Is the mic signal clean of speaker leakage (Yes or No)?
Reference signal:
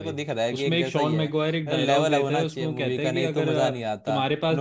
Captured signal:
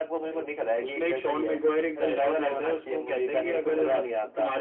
No